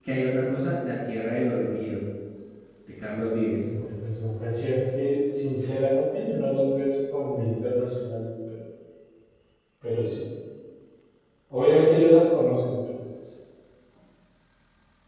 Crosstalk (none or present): none